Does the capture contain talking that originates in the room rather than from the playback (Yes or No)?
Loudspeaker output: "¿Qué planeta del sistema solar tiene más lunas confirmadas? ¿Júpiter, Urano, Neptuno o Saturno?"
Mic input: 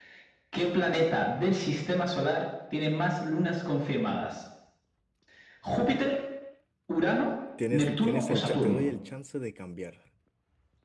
Yes